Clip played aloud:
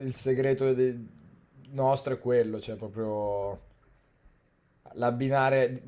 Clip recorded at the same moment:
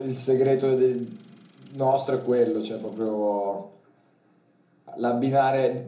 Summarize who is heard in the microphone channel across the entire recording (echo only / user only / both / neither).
echo only